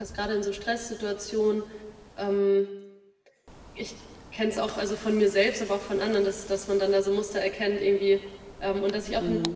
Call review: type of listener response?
listening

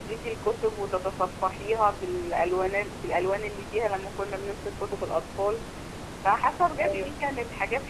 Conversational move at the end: listening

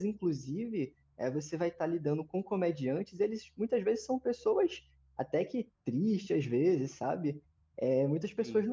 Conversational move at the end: listening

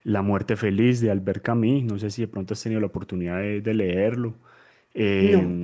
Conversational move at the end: listening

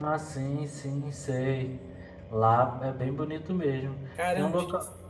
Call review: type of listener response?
taking over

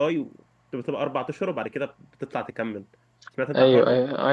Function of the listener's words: taking over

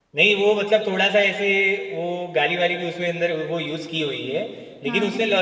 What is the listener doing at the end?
listening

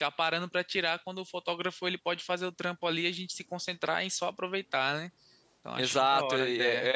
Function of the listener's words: taking over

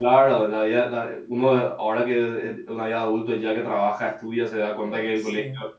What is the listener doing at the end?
listening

